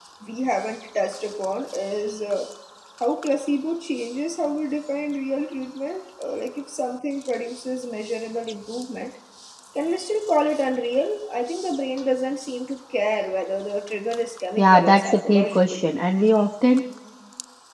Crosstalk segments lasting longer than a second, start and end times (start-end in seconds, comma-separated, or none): 14.6-15.8